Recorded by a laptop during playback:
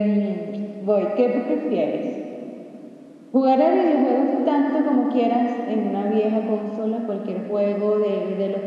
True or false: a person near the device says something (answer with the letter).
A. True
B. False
B